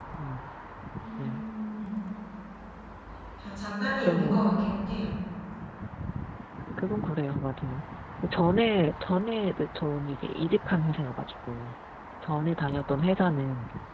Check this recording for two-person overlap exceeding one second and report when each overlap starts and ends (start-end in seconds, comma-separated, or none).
none